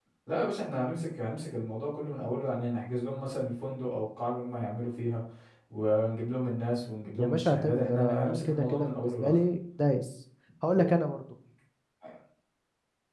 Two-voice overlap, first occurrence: 7.2 s

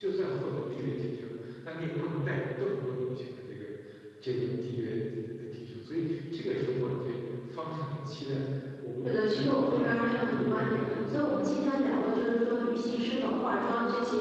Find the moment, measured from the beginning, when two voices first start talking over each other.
9.0 s

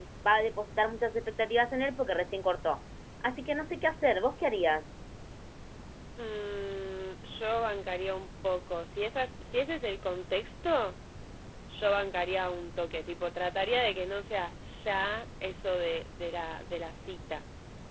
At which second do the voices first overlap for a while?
none

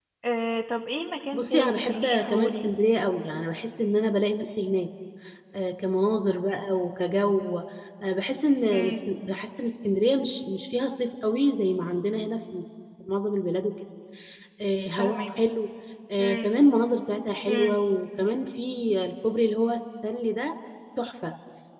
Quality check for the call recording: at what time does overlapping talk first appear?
1.3 s

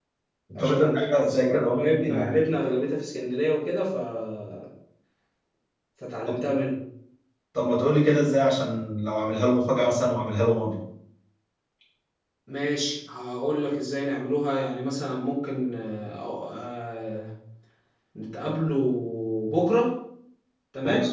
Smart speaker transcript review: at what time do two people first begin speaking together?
0.6 s

